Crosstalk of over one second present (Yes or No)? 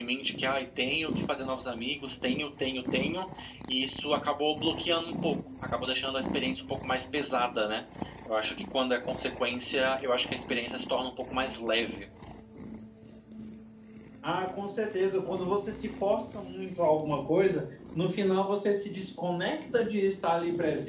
No